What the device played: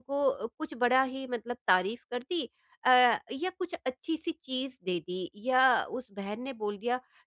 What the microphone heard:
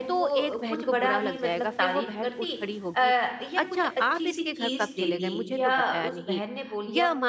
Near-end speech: present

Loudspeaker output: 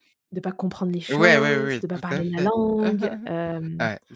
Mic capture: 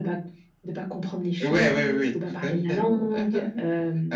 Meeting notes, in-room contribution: none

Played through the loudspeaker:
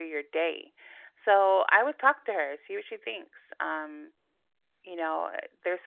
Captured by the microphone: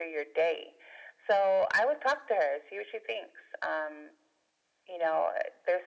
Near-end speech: none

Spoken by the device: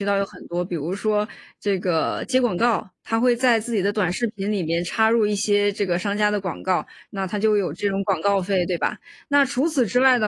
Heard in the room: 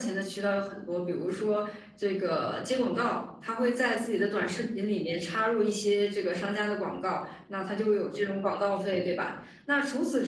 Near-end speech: none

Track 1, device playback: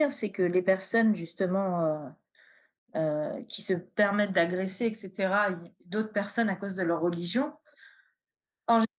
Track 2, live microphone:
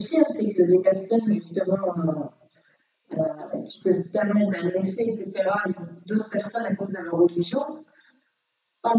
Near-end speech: none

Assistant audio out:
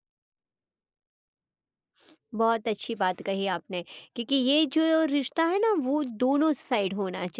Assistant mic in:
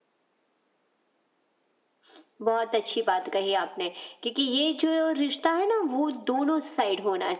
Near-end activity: none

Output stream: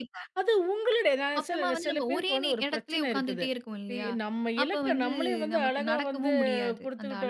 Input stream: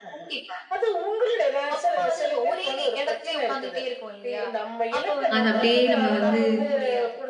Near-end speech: present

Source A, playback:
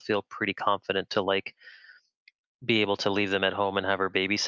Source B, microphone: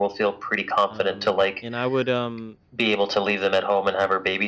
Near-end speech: present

